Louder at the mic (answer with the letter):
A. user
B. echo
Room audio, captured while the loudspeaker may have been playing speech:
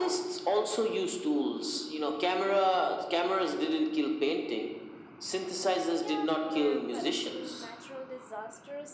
B